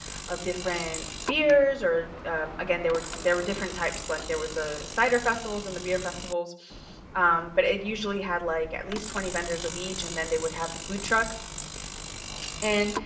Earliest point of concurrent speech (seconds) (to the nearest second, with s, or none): none